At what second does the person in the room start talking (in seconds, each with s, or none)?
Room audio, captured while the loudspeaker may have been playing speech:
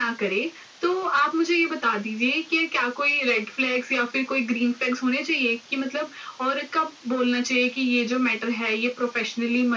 none